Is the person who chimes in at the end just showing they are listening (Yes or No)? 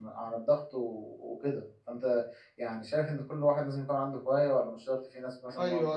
No